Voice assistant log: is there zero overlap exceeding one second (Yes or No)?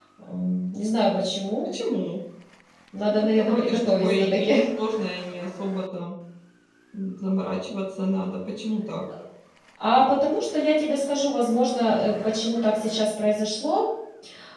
No